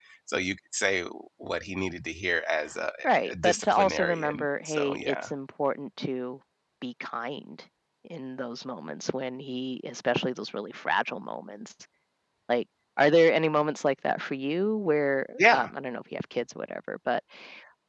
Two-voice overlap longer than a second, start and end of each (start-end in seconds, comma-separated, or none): 3.3-5.2